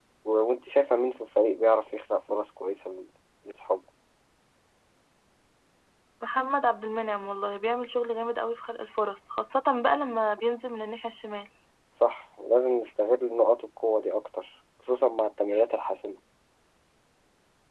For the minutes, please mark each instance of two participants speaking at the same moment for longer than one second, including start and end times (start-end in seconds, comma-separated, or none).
none